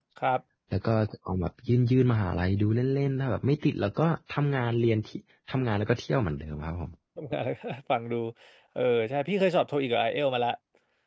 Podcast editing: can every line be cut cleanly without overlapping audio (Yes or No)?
Yes